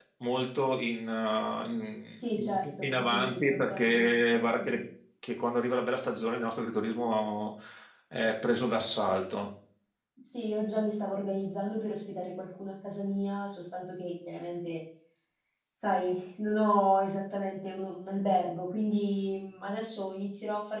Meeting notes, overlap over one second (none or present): present